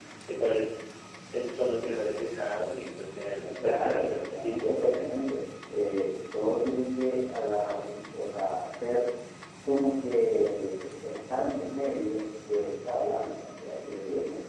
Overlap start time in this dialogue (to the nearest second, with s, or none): 4 s